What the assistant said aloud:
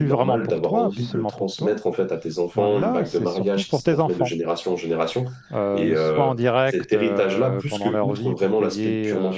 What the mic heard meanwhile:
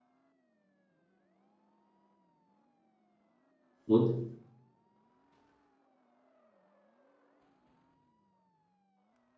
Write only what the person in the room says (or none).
Oui.